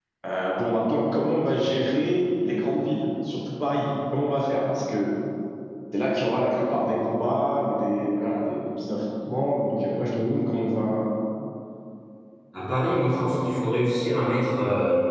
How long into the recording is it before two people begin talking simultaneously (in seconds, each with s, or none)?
none